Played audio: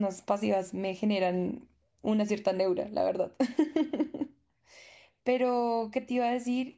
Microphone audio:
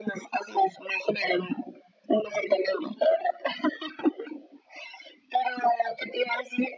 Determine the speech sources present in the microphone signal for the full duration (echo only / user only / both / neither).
echo only